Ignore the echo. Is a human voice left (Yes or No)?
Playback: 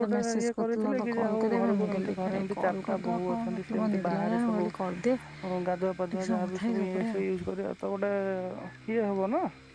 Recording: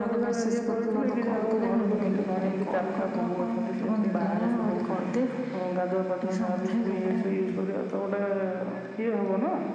Yes